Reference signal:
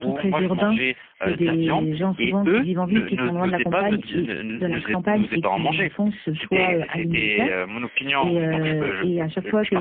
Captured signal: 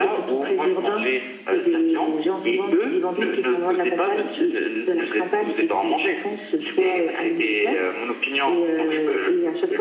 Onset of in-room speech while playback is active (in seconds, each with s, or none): none